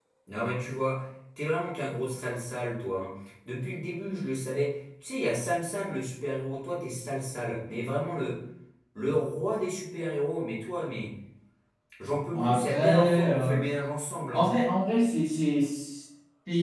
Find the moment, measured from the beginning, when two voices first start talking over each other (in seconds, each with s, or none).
12.3 s